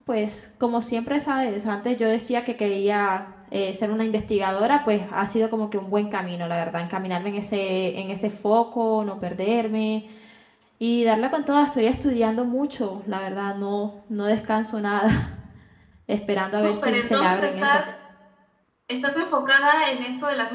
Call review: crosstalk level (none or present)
present